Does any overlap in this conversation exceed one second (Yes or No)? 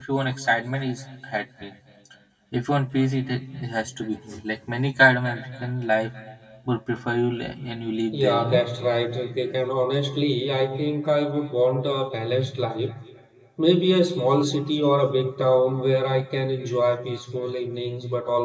No